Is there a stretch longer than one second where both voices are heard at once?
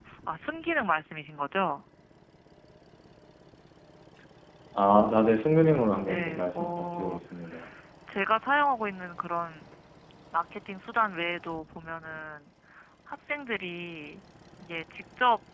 Yes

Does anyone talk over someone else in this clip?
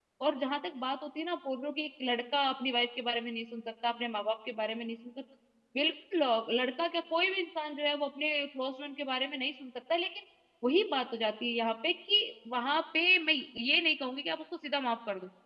No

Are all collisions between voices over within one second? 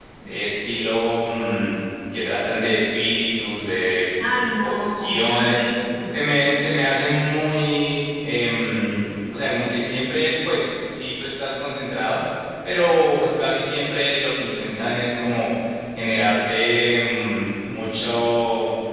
No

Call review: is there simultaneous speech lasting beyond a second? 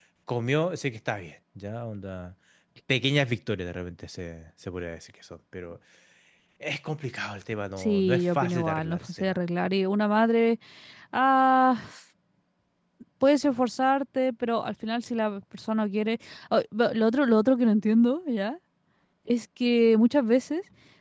Yes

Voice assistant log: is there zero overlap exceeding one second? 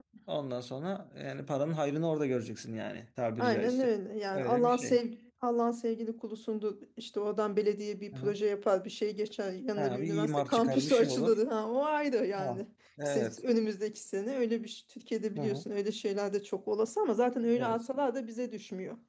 No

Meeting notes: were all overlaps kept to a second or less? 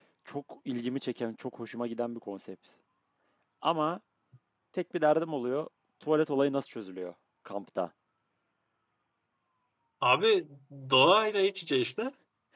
Yes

